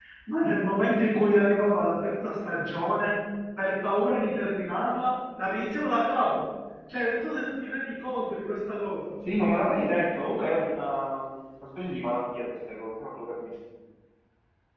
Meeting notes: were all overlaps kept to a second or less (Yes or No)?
Yes